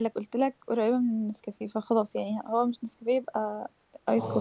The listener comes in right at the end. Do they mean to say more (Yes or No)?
Yes